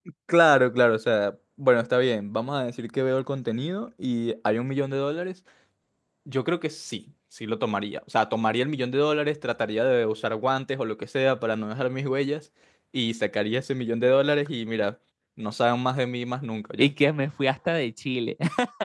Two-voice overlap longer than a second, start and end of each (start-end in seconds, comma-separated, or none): none